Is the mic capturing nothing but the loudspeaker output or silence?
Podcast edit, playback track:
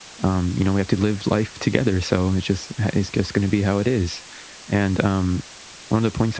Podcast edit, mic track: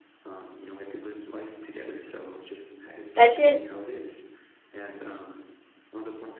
No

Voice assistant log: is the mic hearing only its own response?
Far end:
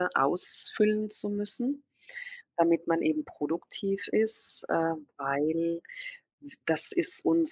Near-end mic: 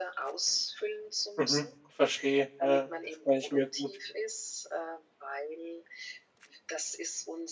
No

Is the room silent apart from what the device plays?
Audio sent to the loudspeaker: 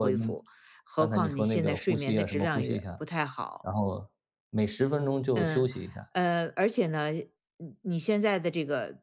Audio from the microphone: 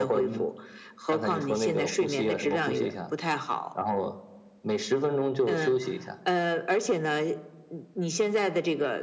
Yes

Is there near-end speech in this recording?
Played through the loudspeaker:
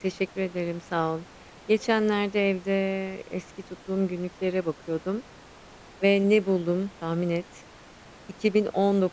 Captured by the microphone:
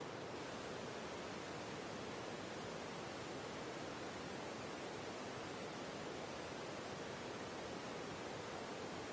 No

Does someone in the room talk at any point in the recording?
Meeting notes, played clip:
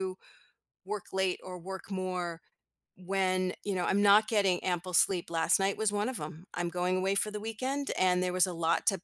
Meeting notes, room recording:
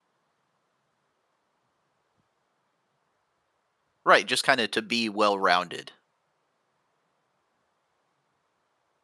Yes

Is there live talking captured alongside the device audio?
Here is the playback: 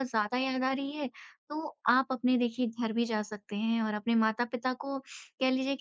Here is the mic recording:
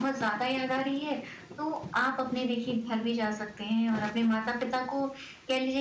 No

